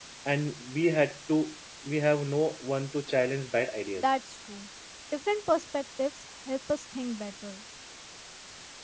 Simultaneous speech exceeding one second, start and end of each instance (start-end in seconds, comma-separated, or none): none